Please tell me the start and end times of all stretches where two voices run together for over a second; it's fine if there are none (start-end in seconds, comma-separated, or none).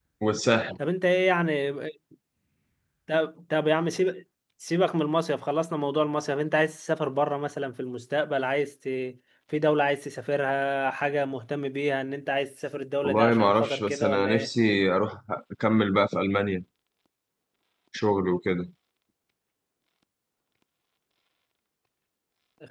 13.0-14.5